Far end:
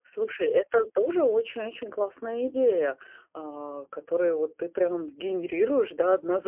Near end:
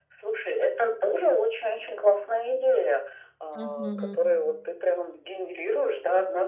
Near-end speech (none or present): present